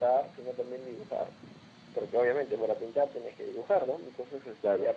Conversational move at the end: listening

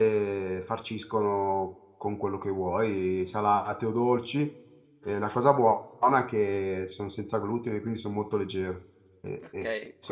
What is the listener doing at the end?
taking over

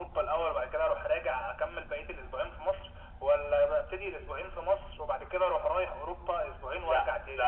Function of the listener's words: taking over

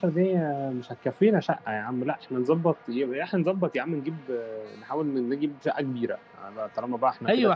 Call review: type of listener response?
taking over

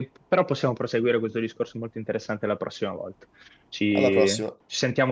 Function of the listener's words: listening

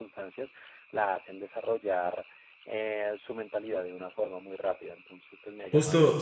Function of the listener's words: taking over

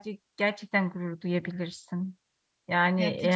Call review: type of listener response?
taking over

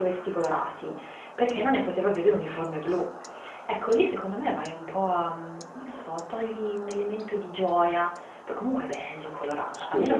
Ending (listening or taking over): taking over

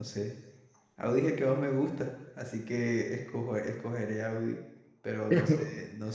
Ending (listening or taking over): listening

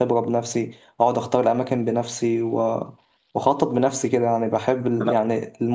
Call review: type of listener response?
listening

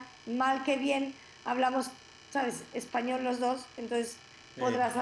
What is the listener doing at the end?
listening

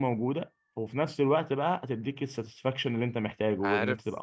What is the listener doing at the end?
taking over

